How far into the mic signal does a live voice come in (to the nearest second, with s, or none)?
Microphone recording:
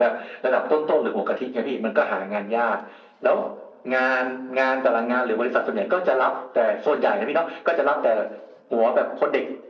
none